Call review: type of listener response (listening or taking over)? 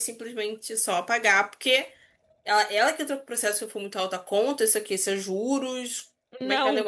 taking over